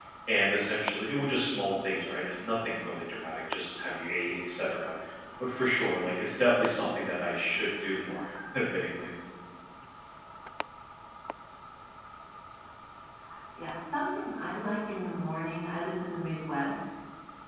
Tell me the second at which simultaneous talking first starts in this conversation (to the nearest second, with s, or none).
none